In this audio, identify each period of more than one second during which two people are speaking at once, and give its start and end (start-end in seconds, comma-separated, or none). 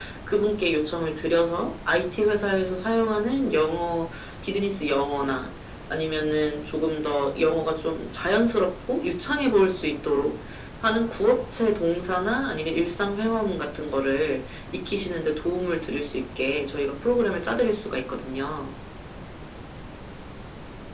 none